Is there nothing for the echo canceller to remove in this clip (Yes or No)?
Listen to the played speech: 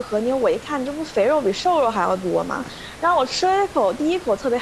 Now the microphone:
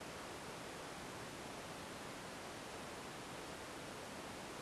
Yes